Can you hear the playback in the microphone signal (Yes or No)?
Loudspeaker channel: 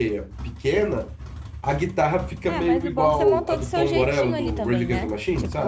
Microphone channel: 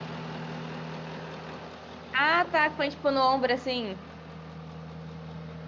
No